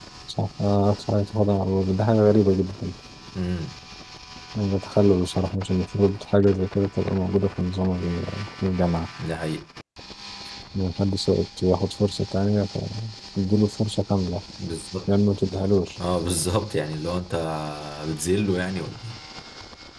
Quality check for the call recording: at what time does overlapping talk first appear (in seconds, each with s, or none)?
none